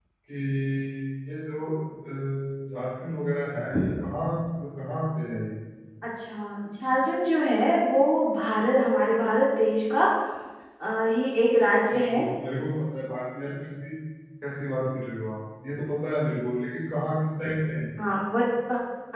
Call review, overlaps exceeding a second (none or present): none